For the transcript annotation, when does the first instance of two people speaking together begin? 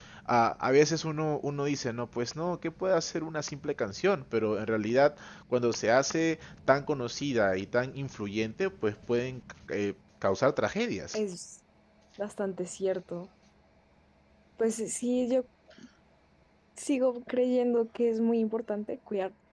none

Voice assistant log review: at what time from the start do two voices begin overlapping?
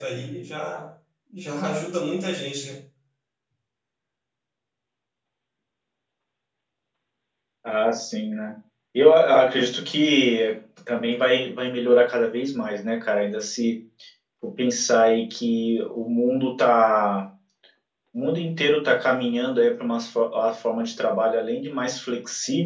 none

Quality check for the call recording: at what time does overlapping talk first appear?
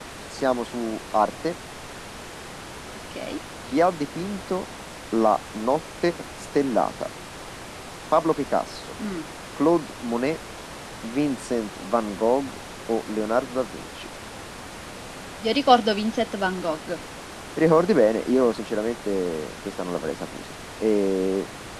none

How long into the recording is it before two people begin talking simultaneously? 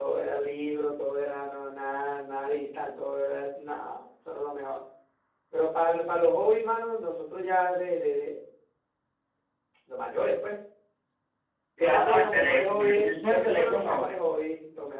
11.8 s

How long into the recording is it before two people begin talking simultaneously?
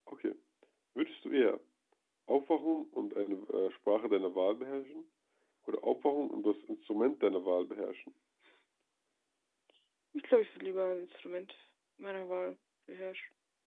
none

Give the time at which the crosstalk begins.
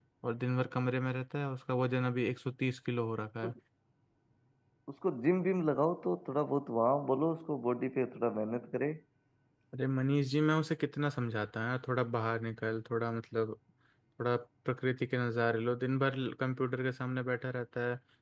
none

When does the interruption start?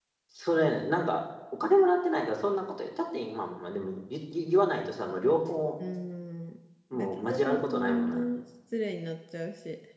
6.9 s

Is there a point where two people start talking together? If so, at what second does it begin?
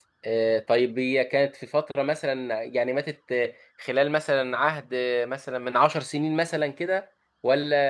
none

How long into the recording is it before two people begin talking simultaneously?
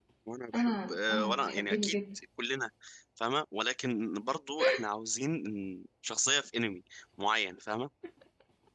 0.5 s

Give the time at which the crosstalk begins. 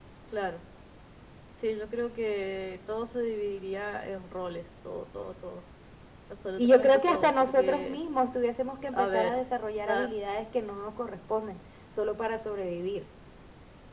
6.6 s

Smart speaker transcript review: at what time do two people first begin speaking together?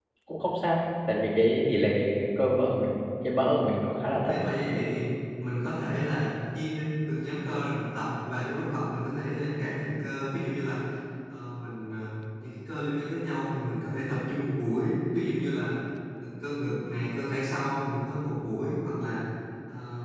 none

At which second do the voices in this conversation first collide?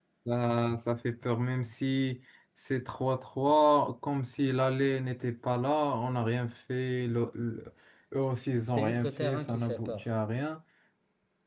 8.7 s

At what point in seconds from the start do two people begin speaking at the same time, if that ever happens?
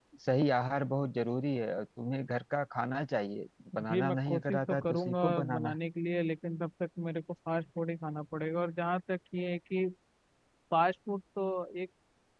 3.7 s

